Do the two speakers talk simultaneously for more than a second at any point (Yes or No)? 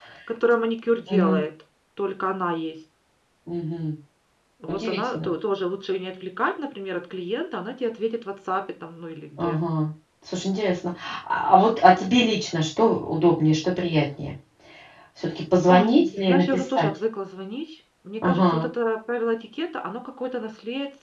Yes